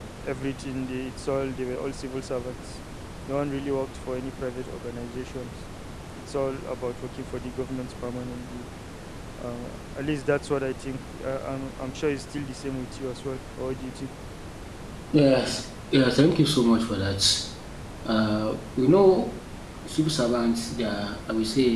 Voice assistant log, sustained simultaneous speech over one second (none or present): none